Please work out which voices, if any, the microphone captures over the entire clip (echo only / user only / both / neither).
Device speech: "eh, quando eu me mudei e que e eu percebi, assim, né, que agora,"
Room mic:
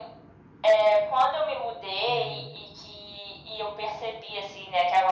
both